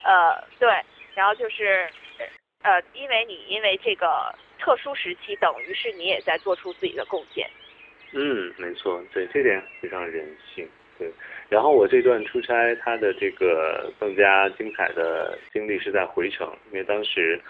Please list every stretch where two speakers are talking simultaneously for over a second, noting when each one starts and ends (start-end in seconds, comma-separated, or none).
none